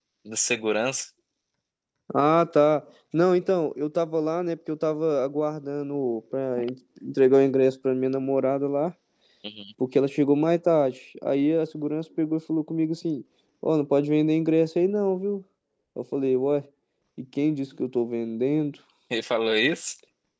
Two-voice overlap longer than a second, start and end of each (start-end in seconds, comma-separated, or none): none